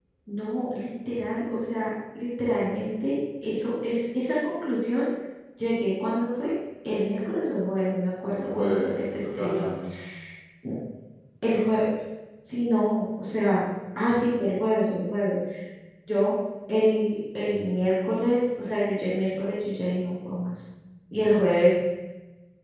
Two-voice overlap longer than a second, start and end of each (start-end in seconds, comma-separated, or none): 8.3-9.7